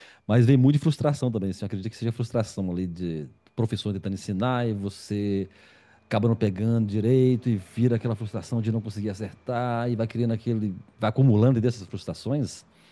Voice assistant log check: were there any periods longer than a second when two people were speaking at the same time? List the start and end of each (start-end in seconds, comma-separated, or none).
none